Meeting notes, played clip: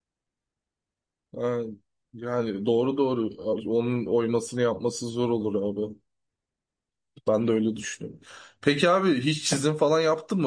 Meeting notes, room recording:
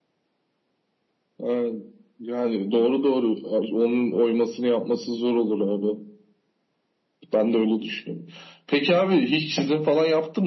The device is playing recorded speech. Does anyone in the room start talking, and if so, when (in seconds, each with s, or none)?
none